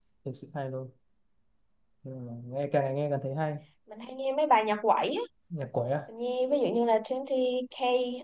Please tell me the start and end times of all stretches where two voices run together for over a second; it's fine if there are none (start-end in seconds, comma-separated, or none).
none